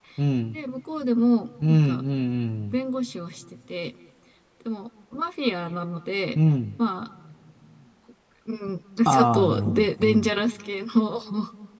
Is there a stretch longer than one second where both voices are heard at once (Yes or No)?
Yes